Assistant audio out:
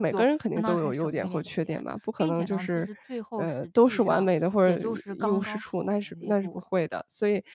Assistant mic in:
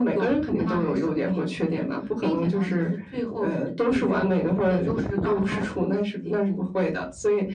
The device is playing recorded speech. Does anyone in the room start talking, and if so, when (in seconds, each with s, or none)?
none